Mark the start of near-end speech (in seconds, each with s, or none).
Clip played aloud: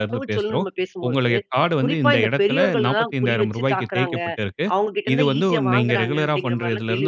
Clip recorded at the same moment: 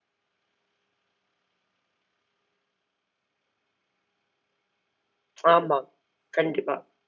5.5 s